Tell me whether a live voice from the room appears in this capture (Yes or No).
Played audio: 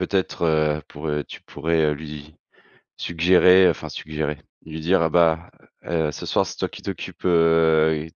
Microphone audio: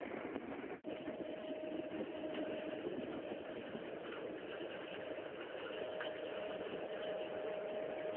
No